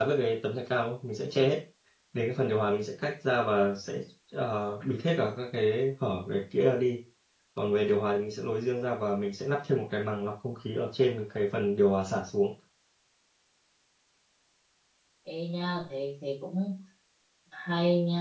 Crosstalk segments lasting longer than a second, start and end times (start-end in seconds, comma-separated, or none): none